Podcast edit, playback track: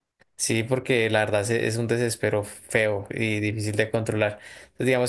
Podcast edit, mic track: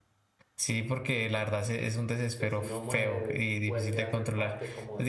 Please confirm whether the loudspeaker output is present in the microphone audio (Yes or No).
Yes